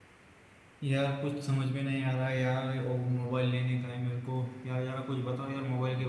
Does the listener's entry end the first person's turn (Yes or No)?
No